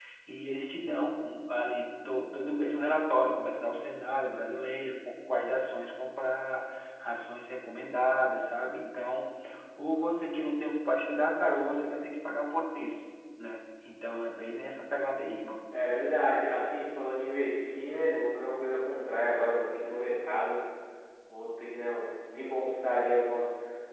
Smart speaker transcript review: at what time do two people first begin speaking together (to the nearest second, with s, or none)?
none